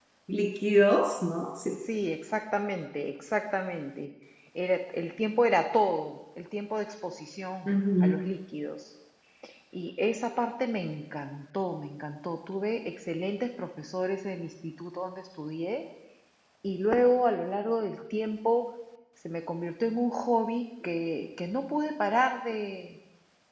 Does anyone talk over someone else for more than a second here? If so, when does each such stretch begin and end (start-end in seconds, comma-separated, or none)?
none